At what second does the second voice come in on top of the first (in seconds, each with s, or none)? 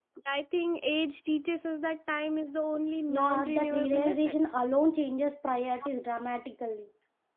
3.1 s